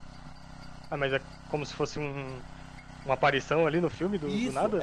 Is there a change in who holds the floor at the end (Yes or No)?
Yes